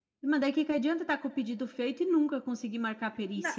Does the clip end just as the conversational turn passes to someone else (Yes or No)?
Yes